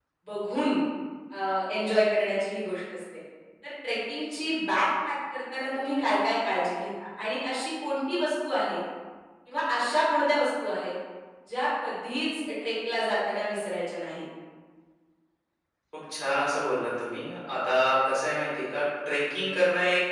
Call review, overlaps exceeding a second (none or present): none